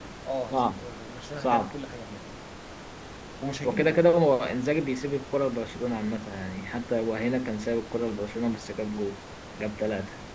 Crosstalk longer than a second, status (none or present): none